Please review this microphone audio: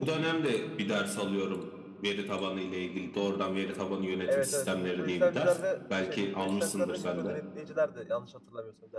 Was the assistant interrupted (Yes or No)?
Yes